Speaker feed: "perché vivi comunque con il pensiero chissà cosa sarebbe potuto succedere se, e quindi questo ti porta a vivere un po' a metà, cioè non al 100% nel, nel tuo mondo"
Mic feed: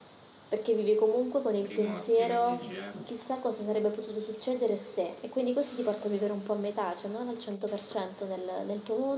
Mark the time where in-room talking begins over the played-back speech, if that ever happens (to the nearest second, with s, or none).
2 s